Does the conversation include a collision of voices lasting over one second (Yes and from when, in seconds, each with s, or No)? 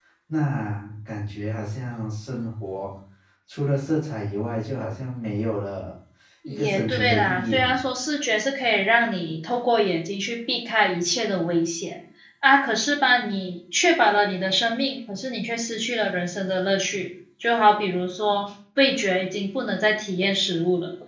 Yes, from 6.5 s